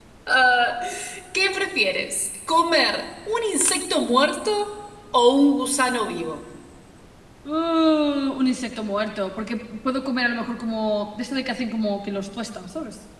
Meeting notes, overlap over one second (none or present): none